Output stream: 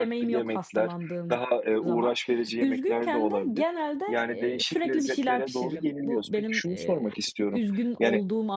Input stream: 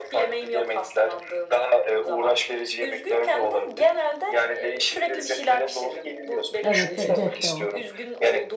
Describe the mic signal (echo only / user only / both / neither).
both